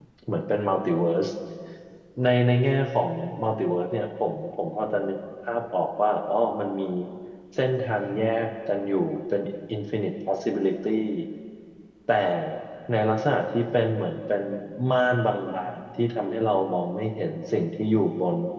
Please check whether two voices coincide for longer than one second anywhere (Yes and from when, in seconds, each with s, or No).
No